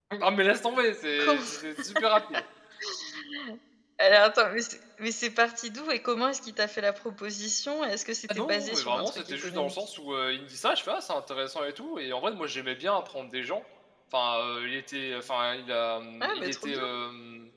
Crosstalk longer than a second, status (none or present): present